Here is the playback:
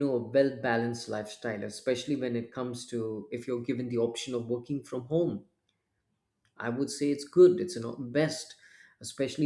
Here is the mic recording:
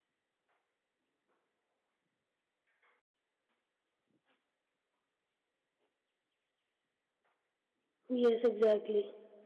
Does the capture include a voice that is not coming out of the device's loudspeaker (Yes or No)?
Yes